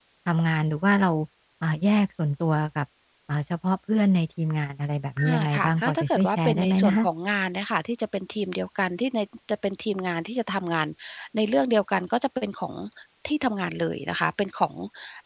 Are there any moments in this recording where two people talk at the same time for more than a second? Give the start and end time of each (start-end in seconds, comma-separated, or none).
5.2-7.0